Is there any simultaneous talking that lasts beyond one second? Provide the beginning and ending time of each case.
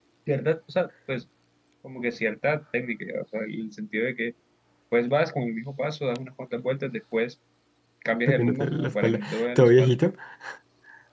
8.3-10.0

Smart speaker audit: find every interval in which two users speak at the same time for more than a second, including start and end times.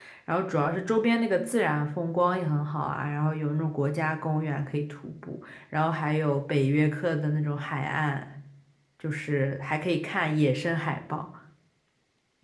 none

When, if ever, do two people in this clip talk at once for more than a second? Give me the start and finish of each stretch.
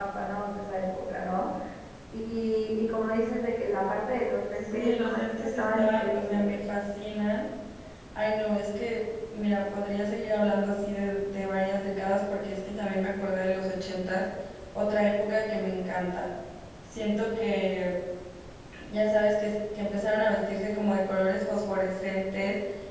4.7-6.5

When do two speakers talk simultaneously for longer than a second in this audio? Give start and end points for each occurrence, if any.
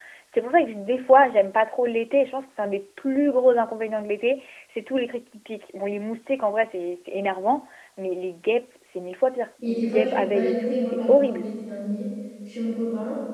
9.7-11.5

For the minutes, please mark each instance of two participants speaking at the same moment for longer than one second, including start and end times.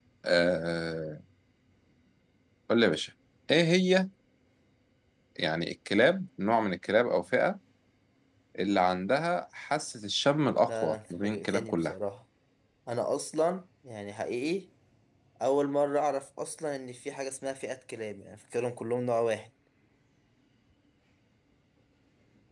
10.7-11.9

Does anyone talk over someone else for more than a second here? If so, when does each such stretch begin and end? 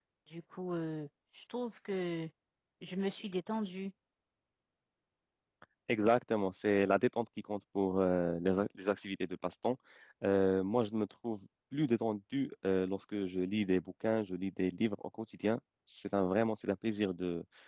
none

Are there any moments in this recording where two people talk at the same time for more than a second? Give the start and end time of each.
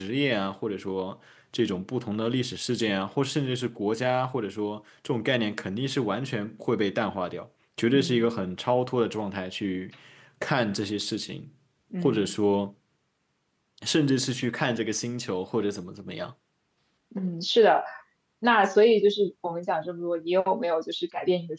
none

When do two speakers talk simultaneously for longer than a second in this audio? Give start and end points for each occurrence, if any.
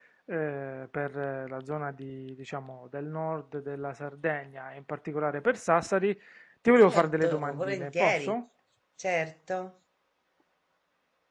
6.8-8.3

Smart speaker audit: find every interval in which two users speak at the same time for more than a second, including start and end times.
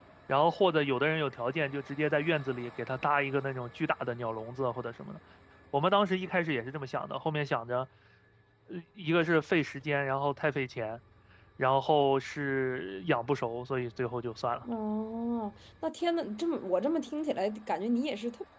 none

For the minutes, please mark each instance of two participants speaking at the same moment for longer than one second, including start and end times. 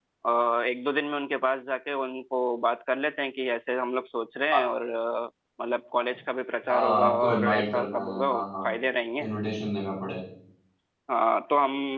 6.7-8.7

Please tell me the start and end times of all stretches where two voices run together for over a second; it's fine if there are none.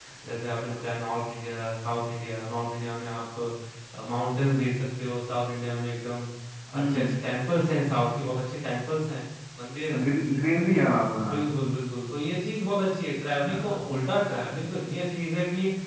none

